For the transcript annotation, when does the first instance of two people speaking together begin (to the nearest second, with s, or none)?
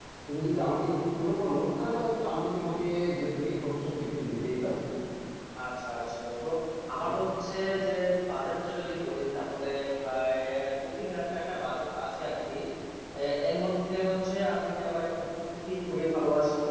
none